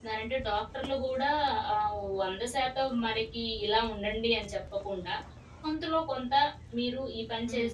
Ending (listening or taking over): listening